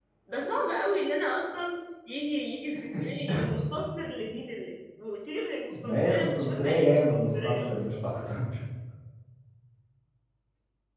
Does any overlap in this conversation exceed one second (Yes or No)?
Yes